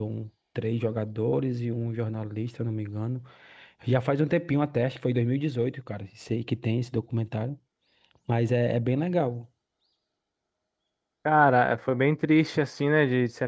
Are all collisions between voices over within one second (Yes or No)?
Yes